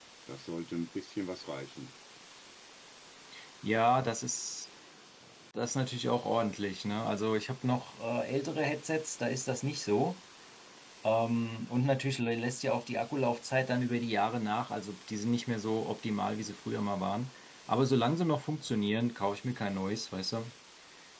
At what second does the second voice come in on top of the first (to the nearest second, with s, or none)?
none